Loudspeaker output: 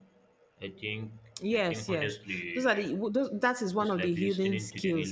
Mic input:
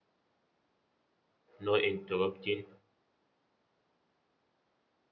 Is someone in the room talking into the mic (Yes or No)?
Yes